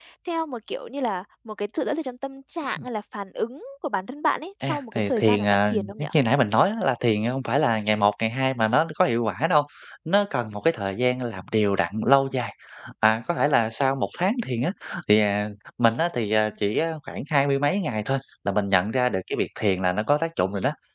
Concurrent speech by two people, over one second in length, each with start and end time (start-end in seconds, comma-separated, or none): 4.6-6.1